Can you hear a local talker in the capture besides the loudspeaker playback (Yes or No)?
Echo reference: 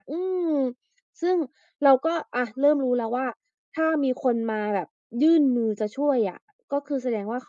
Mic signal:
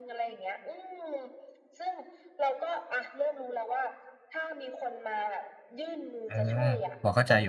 Yes